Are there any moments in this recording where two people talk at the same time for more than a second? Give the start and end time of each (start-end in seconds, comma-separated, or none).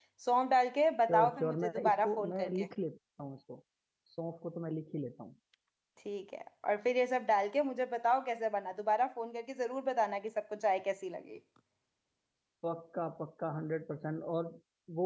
1.1-2.7